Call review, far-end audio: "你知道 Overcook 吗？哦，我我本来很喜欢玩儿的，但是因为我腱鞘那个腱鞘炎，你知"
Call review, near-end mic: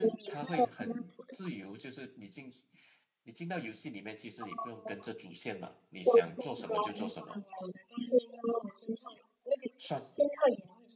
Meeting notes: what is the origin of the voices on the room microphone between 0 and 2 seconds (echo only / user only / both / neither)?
both